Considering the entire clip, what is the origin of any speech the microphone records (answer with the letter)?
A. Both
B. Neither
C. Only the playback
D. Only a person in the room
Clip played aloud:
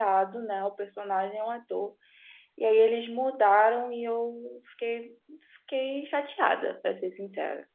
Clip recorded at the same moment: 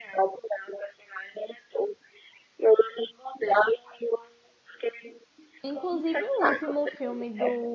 A